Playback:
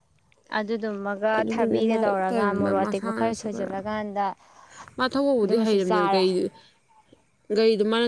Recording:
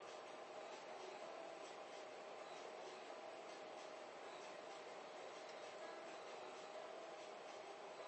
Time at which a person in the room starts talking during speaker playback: none

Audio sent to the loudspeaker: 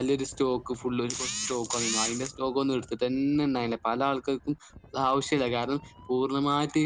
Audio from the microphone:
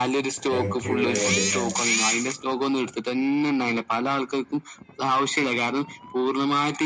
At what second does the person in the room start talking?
0.6 s

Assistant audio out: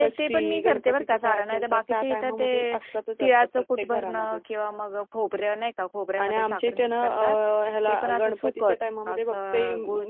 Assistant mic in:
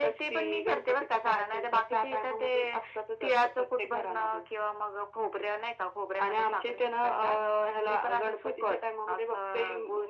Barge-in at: none

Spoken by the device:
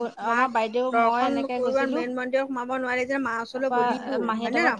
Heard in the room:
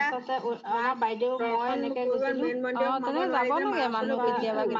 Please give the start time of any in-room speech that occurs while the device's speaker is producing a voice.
2.8 s

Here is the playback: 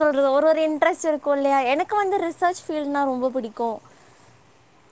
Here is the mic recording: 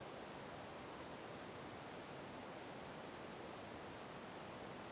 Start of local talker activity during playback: none

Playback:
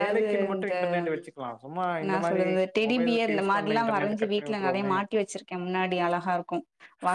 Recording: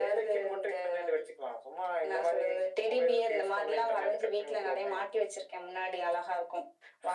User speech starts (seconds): none

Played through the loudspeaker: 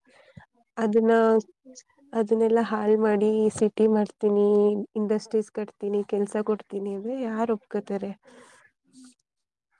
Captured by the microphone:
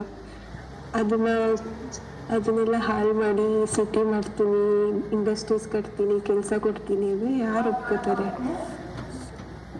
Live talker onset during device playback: 7.4 s

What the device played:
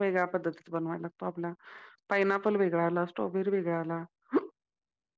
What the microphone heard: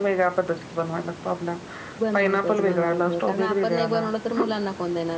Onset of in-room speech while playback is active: 2.0 s

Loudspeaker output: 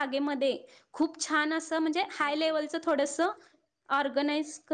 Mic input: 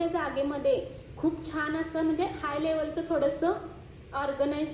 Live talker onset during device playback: none

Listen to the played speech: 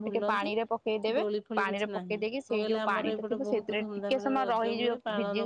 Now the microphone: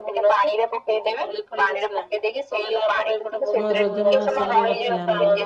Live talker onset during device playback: 3.6 s

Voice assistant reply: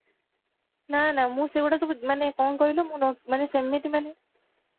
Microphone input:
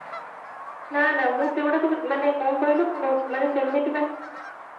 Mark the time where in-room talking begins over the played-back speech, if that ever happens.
none

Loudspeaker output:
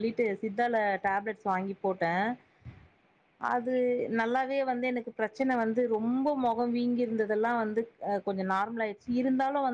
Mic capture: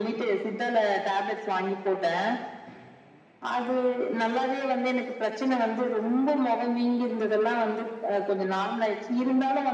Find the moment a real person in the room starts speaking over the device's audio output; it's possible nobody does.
none

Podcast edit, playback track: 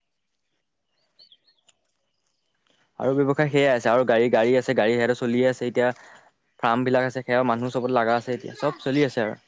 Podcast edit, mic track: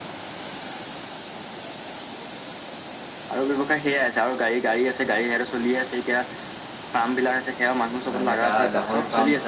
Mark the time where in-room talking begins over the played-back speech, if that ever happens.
8.1 s

